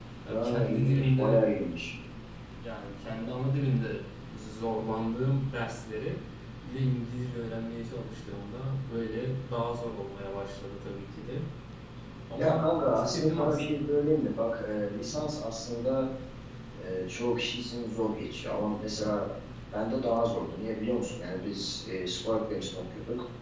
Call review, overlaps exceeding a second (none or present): present